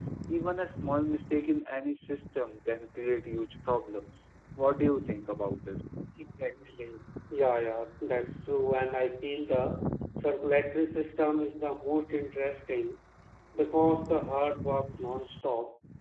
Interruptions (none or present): none